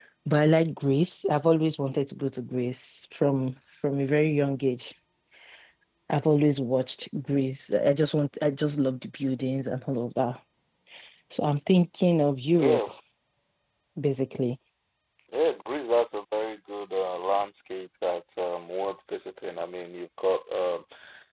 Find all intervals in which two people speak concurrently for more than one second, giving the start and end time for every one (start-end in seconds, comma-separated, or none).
none